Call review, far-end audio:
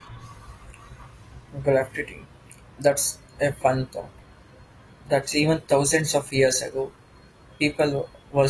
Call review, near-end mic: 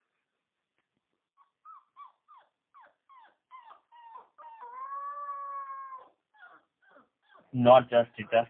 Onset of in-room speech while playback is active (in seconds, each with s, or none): 7.5 s